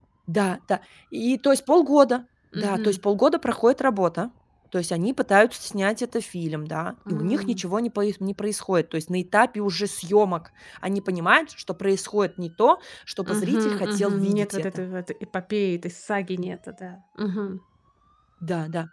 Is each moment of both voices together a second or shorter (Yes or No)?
No